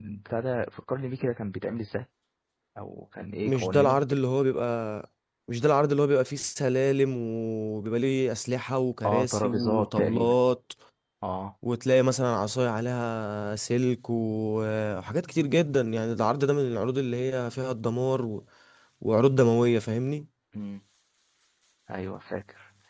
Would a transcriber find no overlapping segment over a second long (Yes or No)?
No